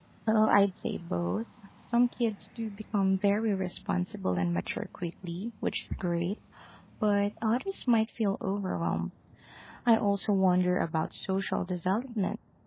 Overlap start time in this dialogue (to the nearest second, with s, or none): none